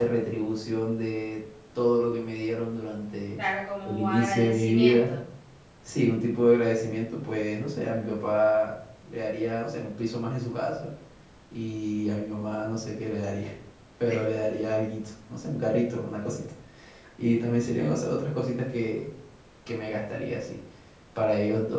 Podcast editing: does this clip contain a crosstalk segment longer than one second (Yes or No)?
Yes